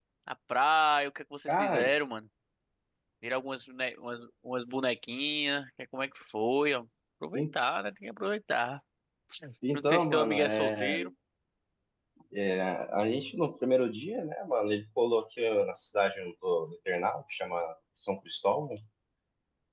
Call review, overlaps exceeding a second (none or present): present